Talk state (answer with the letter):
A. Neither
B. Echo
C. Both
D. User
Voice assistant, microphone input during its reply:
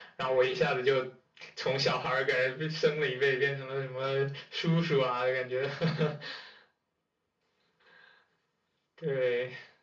B